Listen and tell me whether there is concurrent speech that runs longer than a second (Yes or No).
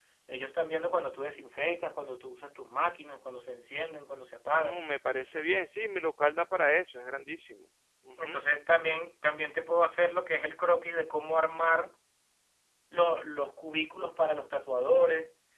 No